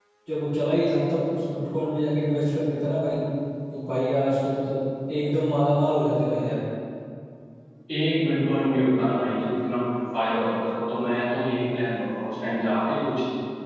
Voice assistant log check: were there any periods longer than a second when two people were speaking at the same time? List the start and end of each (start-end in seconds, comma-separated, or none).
none